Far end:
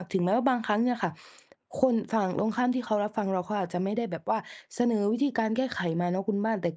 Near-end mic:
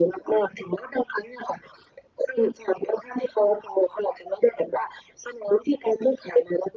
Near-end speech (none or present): none